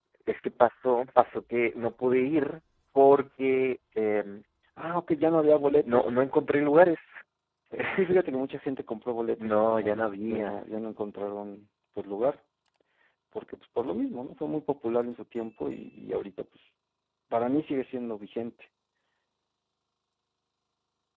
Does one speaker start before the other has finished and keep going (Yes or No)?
Yes